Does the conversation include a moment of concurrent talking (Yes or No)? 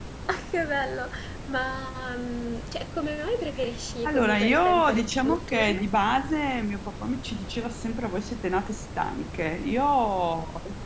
Yes